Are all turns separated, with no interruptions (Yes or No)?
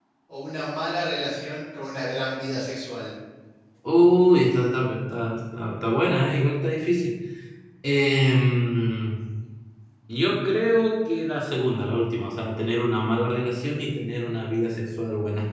Yes